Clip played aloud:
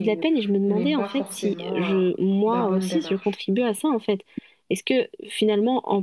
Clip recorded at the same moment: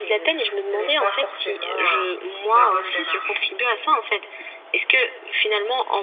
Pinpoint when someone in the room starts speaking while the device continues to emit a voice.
none

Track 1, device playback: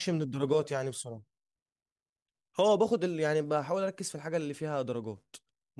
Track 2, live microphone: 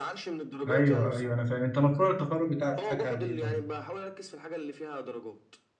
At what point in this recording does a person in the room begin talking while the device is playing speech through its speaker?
0.7 s

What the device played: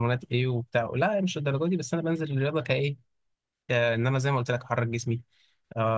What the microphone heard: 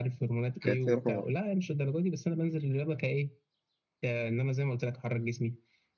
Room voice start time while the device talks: 0.6 s

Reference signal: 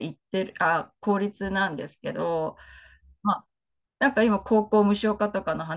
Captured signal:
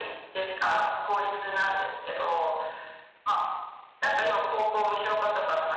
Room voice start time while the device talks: none

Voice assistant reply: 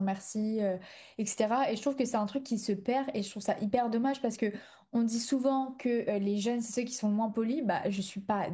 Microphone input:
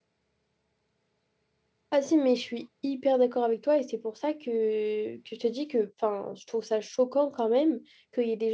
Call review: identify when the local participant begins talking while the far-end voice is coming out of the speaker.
1.9 s

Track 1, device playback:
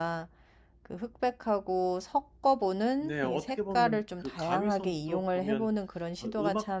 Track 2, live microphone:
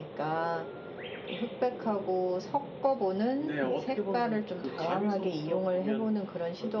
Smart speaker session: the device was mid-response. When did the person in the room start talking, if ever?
none

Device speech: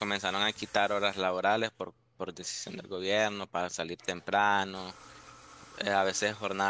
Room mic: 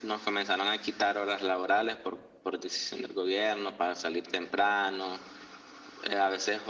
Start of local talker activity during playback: none

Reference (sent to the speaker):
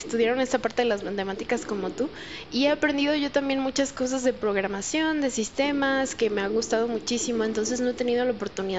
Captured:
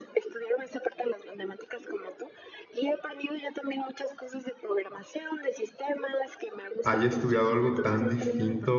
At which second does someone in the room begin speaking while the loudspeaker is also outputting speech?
6.8 s

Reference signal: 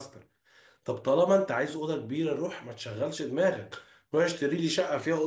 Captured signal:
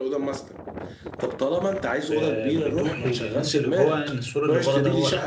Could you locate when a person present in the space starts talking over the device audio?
2.0 s

